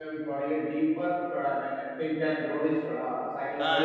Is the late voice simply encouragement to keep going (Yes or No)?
No